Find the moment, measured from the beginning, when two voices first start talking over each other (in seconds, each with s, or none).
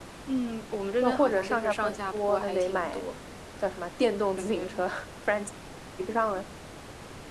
1.0 s